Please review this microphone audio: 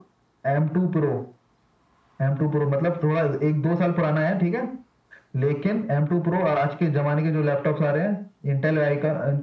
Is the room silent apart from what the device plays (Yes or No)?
Yes